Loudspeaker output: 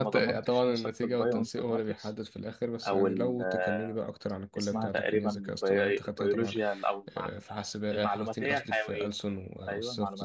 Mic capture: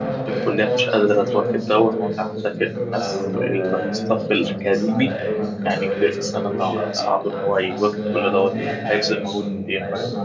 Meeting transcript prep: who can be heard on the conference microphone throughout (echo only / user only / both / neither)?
both